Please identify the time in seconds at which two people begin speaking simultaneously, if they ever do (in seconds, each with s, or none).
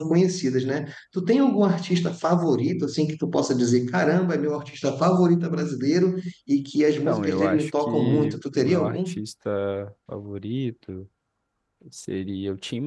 7.0 s